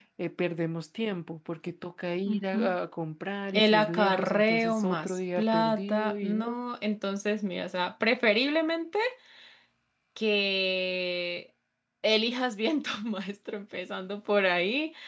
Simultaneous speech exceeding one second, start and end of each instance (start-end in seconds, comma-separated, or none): 3.5-6.6